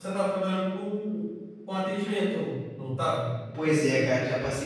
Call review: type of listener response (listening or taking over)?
taking over